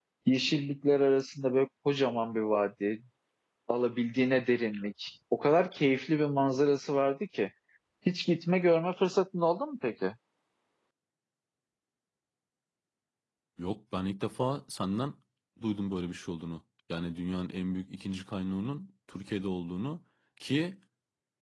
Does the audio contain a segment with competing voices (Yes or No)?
No